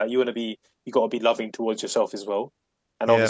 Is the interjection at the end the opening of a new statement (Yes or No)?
No